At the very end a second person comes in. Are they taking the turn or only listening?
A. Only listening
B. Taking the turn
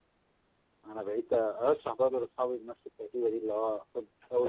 B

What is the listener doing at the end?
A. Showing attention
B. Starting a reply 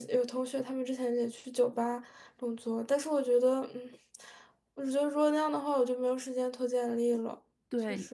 B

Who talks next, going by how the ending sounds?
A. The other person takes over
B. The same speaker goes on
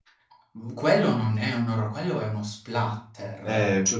A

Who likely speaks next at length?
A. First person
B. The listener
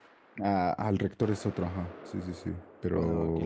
B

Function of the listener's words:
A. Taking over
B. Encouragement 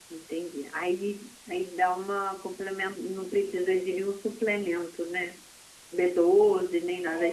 A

